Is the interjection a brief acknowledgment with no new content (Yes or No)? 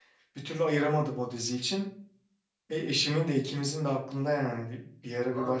No